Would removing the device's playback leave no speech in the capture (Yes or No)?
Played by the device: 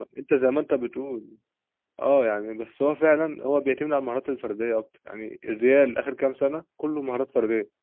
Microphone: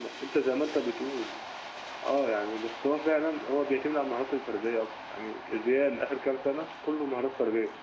Yes